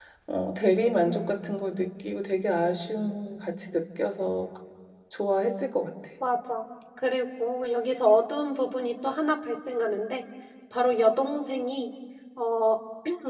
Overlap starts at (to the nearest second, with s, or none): none